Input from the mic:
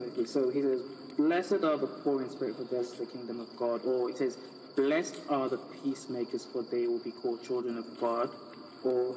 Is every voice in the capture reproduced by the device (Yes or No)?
Yes